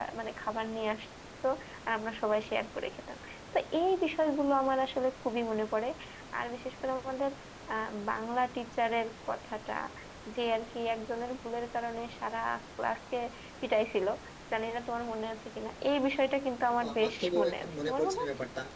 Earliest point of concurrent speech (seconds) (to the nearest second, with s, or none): 17 s